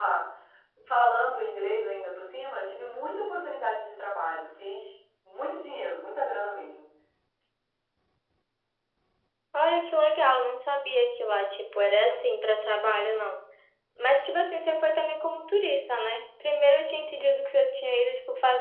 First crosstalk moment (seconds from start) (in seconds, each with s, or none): none